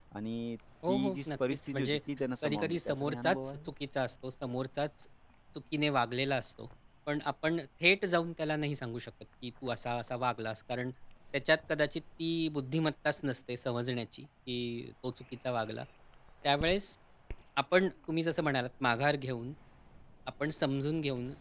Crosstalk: present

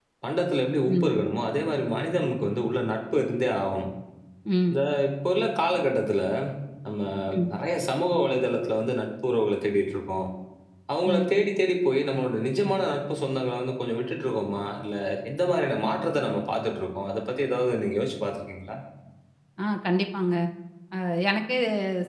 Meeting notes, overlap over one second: none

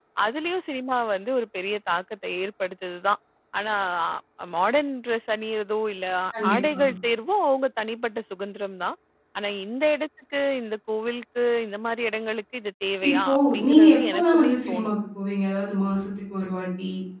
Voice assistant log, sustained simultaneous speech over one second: present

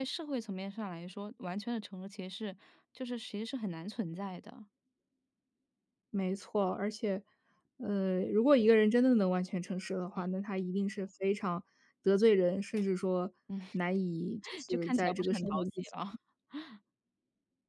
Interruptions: present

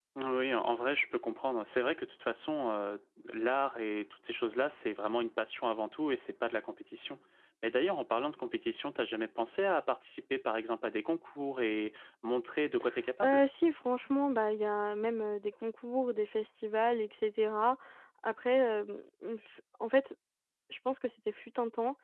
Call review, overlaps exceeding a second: none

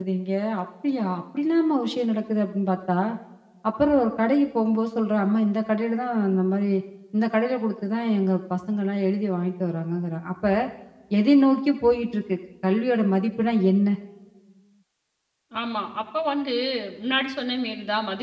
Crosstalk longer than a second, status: none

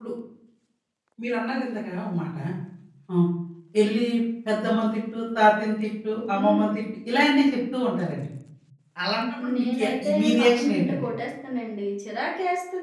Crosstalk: present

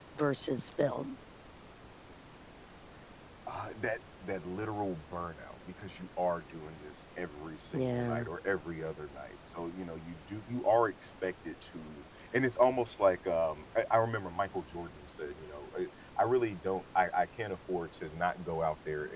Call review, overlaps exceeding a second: none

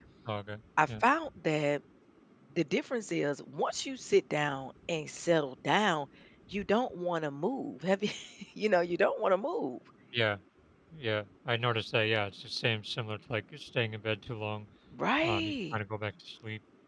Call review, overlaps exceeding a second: none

